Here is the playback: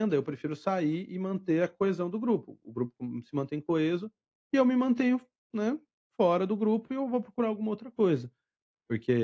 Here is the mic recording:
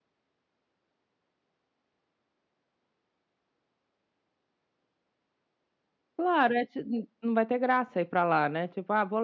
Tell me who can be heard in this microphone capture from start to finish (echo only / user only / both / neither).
user only